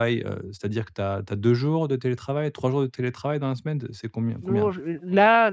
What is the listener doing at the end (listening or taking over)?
taking over